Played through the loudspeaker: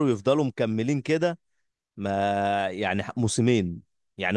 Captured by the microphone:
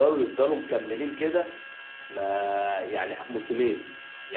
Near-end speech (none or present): none